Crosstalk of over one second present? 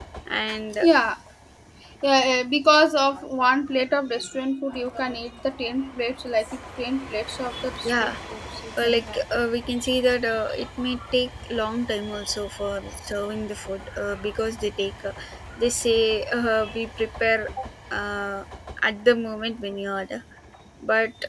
No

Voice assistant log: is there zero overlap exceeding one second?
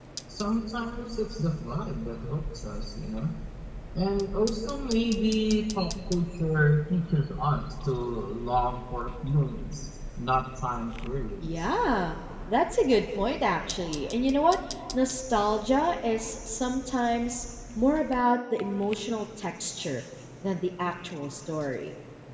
Yes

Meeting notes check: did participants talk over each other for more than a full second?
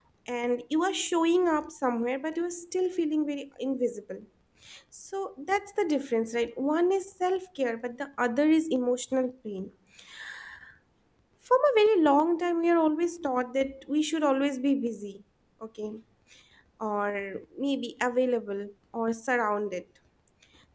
No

